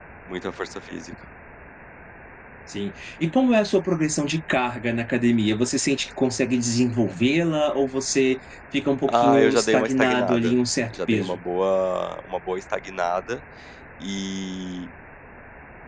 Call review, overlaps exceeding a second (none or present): present